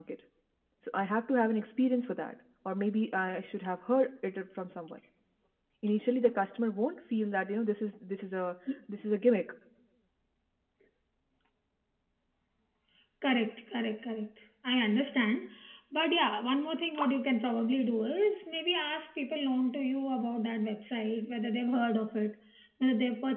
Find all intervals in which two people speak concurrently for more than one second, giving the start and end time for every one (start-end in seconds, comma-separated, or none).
none